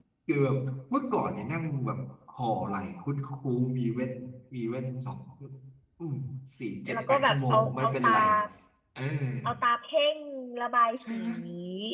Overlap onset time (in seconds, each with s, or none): 6.9 s